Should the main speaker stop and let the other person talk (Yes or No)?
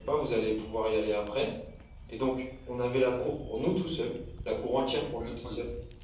No